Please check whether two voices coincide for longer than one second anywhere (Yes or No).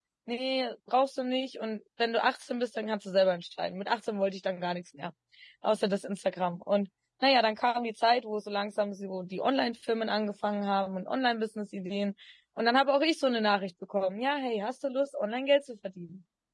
No